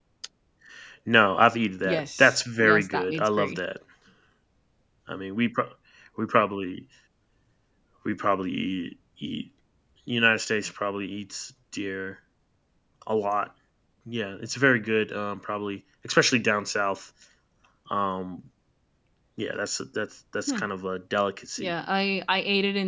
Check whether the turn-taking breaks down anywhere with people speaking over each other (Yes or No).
Yes